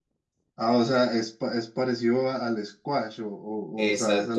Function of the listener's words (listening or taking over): taking over